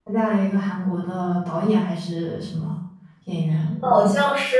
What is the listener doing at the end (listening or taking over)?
taking over